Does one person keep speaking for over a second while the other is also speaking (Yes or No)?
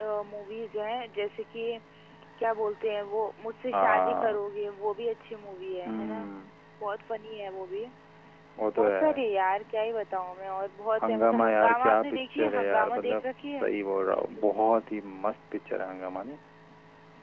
Yes